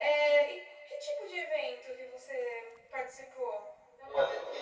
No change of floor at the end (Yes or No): No